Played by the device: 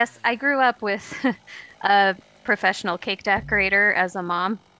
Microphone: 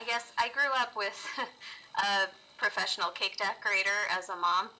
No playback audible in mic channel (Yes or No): No